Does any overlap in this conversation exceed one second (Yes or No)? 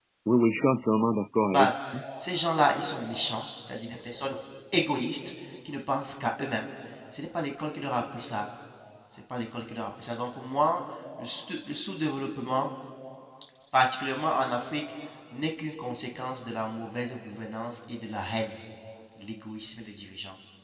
No